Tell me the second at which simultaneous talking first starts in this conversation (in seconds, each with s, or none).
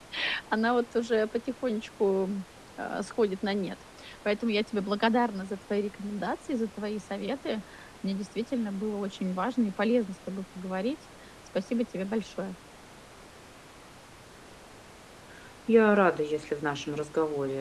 none